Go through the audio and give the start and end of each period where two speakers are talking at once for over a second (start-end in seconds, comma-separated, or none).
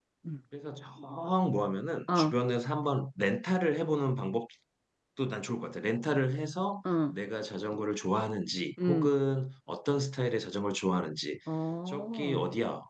none